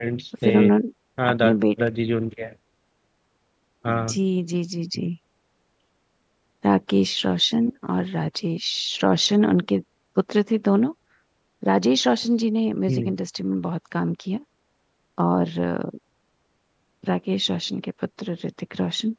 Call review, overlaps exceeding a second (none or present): none